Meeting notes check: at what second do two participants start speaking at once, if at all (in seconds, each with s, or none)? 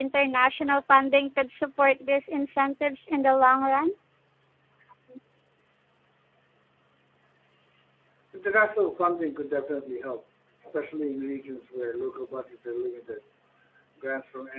none